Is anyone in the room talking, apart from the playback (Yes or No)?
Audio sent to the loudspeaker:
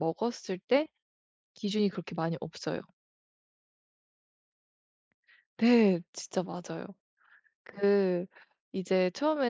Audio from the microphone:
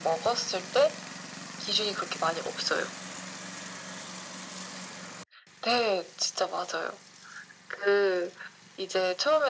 No